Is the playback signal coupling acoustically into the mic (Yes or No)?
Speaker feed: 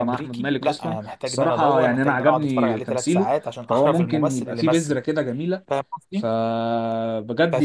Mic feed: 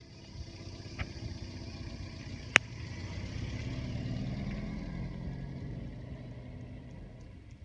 No